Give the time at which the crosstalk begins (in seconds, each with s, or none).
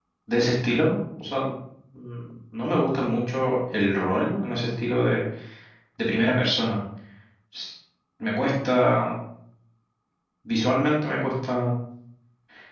none